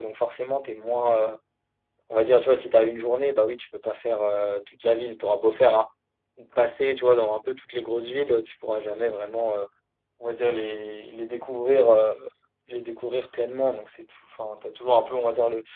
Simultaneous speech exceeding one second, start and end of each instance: none

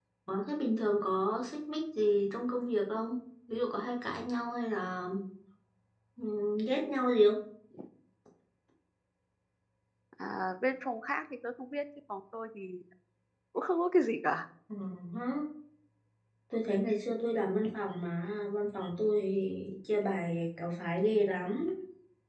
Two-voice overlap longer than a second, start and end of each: none

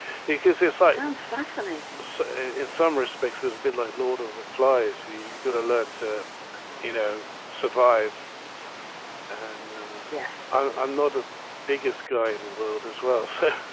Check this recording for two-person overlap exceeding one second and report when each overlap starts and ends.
none

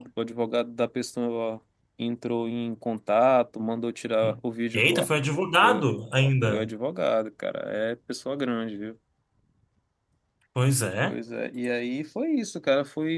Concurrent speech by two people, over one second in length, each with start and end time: none

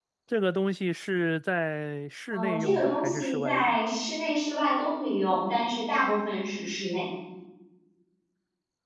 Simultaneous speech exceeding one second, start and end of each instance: 2.3-3.8

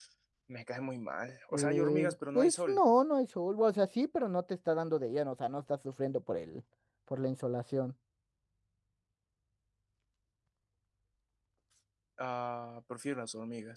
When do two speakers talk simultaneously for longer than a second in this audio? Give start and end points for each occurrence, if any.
1.5-2.8

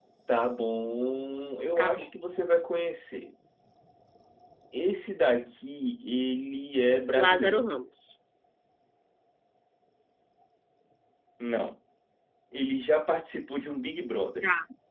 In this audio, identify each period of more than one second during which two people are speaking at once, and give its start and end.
none

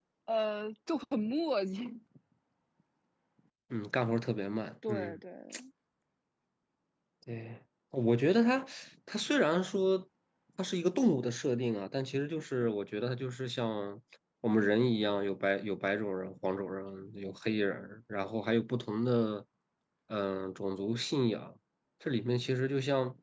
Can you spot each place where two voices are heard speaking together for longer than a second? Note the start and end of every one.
none

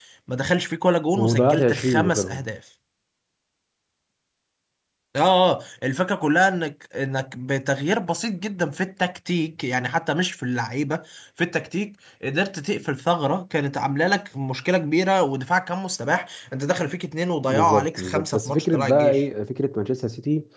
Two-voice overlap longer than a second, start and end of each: 1.1-2.4, 17.5-19.2

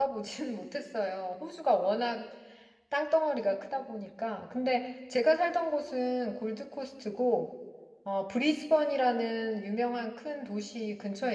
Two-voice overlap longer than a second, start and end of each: none

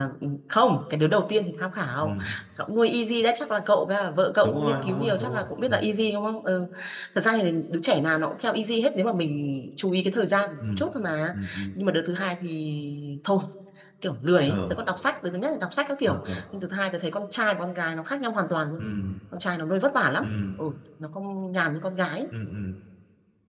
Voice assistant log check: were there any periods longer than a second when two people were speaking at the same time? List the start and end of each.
4.4-5.7

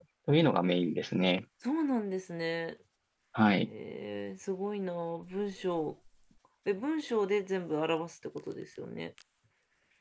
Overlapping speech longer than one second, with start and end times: none

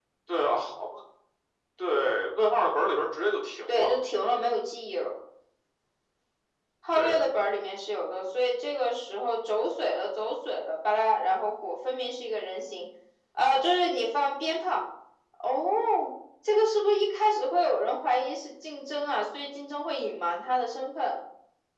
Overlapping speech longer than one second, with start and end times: none

